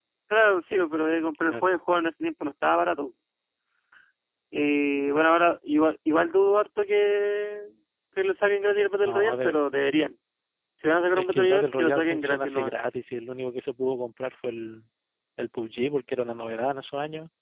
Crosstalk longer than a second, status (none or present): present